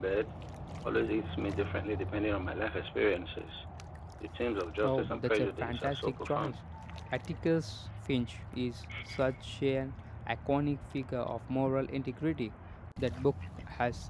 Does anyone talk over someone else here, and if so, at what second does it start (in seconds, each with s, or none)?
4.8 s